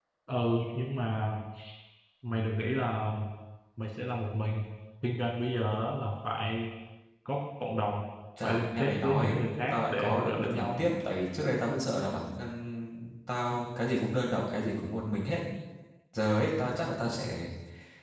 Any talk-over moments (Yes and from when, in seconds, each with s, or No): Yes, from 8.4 s